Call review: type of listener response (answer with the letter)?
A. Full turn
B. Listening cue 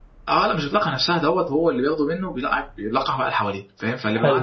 B